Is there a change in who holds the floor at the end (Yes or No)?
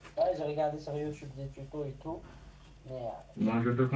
Yes